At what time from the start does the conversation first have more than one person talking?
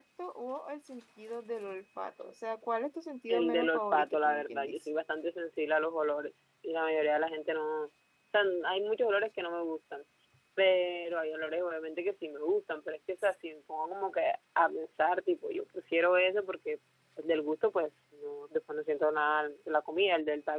3.3 s

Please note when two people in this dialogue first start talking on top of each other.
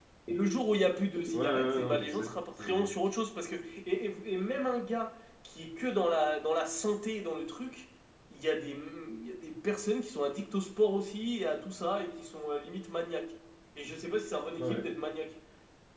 1.3 s

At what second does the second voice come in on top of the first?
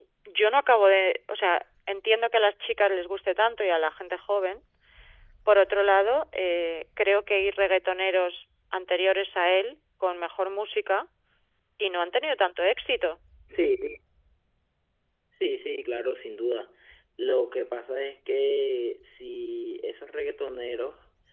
none

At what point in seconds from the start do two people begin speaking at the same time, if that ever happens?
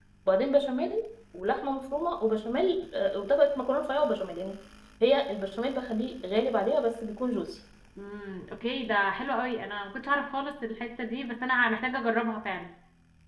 none

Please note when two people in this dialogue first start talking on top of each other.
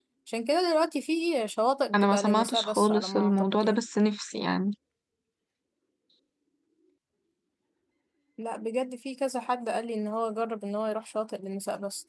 1.9 s

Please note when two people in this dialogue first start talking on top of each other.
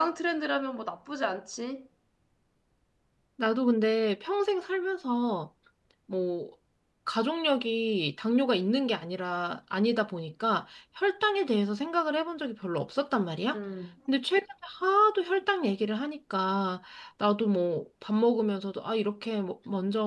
none

